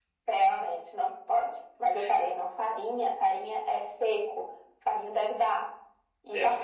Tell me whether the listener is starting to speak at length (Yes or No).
No